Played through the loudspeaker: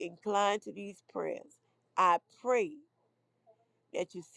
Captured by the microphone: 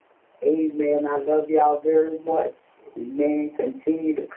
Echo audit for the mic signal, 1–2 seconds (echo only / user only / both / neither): user only